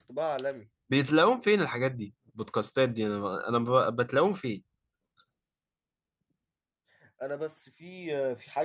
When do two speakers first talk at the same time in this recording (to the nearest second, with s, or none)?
none